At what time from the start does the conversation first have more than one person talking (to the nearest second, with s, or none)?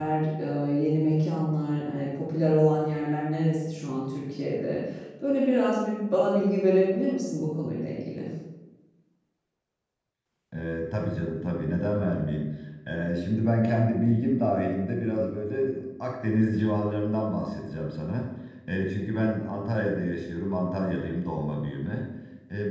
none